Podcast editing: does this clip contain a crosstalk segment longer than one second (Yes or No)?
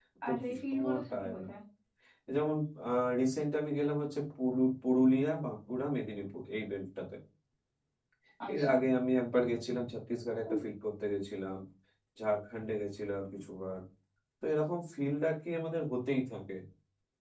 Yes